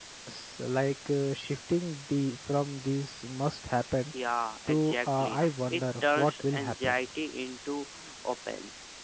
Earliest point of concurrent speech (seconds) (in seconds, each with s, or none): 4.7 s